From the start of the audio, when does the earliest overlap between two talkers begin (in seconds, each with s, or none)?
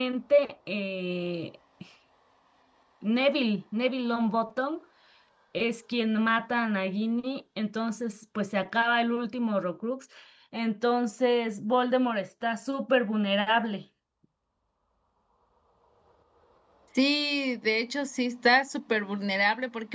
none